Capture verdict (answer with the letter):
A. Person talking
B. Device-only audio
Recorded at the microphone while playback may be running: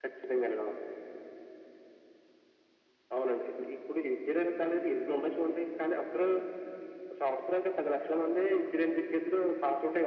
B